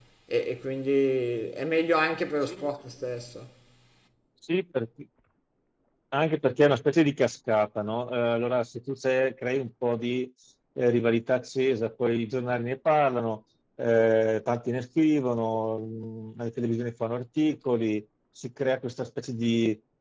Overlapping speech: No

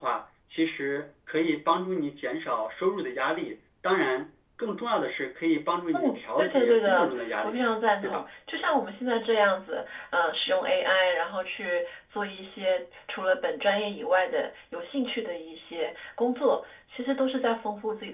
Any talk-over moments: Yes, from 5.9 s

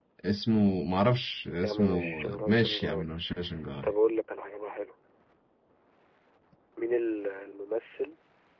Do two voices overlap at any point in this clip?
Yes, from 1.6 s

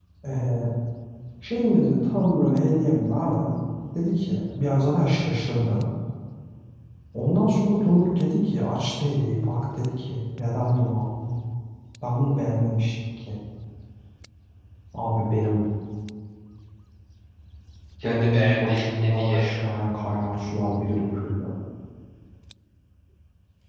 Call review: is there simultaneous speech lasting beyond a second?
Yes, from 18.0 s

